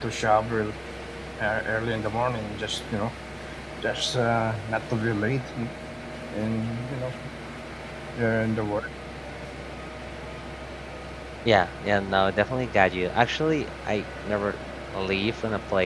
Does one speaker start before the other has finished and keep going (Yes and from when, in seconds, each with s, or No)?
No